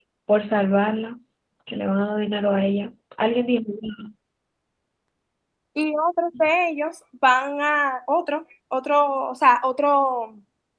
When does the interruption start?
none

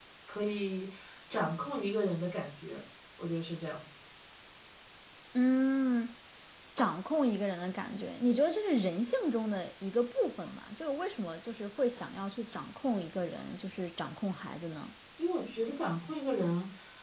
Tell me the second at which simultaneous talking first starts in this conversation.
none

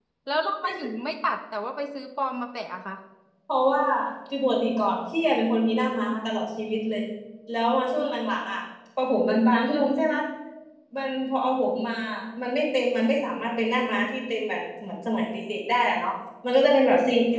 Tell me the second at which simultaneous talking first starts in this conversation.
none

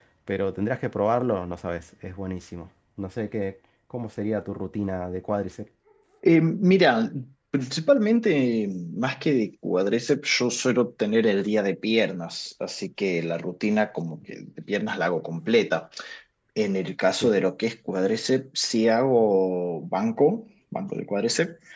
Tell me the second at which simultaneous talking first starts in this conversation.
none

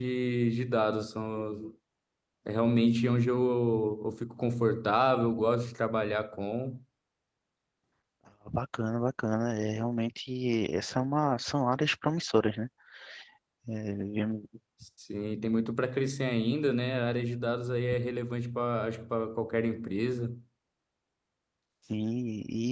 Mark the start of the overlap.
none

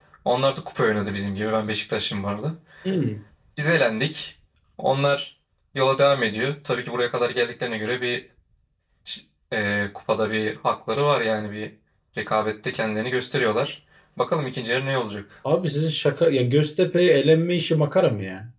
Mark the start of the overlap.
none

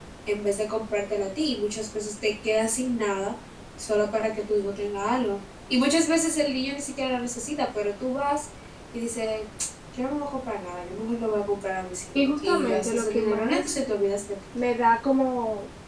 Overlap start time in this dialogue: 12.2 s

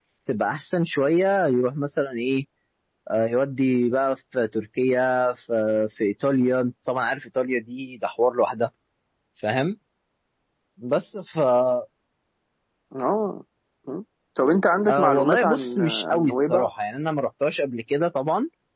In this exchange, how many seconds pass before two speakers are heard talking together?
14.9 s

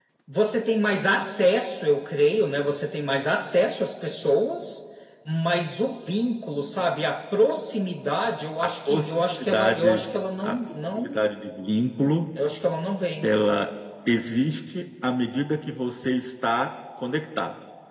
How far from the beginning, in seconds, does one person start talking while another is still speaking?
8.6 s

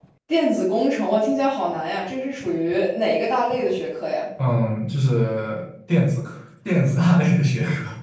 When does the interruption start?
none

